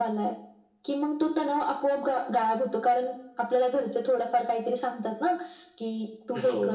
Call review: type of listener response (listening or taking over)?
listening